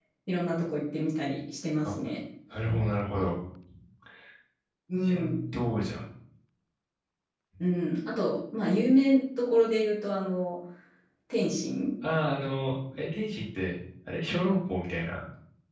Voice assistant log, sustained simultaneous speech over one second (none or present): none